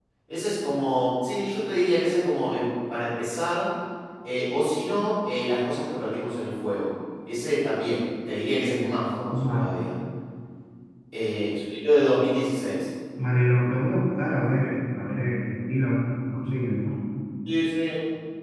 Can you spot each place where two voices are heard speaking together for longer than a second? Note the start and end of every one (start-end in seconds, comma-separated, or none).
none